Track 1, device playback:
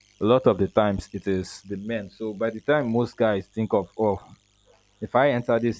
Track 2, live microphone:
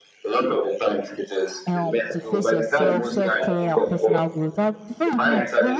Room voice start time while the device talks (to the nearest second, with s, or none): 2 s